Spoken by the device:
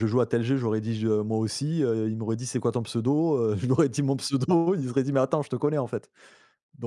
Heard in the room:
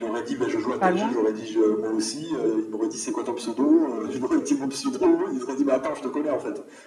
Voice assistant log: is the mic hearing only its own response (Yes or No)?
No